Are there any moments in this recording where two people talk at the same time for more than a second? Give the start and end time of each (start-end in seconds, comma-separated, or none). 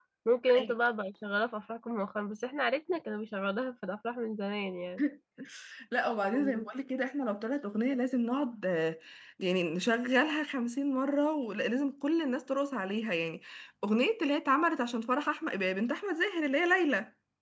none